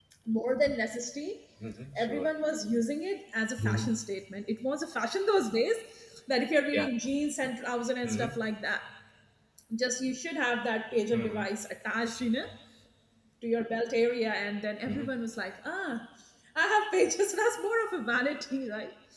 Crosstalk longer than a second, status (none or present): none